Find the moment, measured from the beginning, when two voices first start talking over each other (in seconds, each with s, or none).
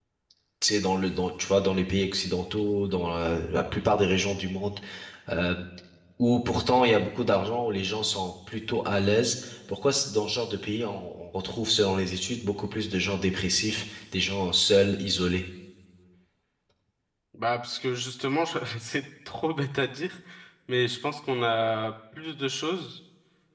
none